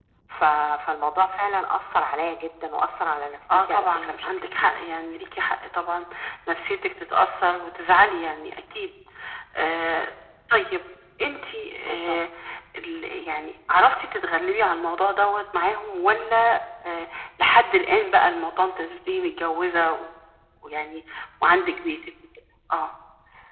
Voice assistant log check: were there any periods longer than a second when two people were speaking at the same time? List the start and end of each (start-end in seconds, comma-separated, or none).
3.5-4.8